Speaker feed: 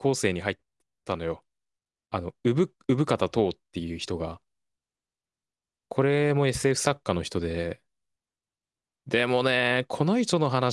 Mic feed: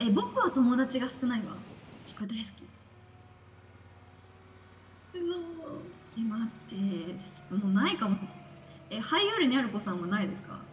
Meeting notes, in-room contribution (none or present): present